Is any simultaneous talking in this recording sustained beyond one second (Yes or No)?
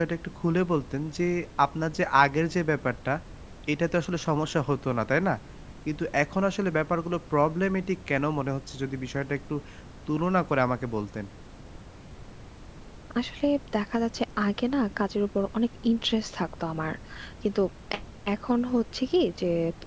No